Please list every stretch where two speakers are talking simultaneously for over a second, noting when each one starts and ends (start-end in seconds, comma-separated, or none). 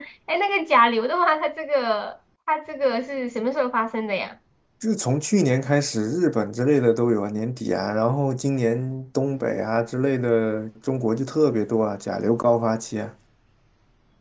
none